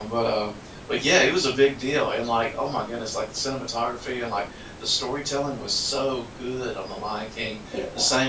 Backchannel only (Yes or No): Yes